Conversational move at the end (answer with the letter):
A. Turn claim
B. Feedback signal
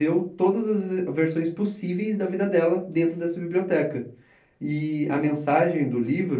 B